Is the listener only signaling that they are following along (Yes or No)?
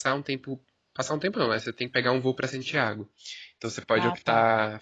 Yes